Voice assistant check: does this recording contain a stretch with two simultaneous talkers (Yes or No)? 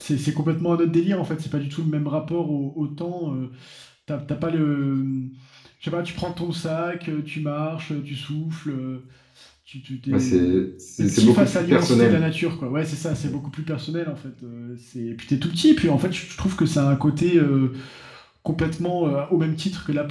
Yes